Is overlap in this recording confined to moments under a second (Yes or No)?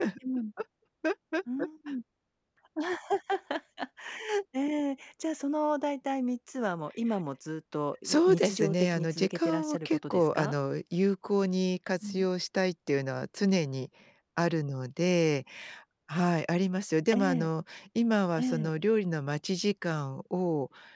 No